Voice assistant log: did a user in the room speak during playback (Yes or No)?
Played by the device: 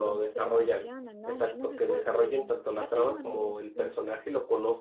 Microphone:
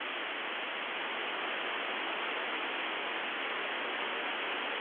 No